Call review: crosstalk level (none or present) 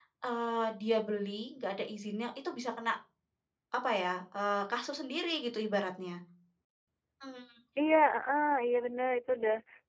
none